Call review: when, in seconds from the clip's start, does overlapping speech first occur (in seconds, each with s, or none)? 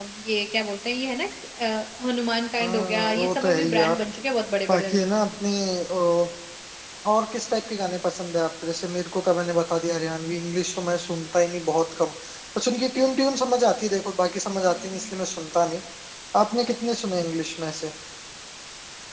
2.6 s